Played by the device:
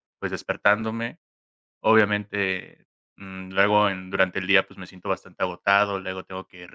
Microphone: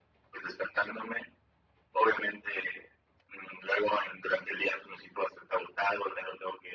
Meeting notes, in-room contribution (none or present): none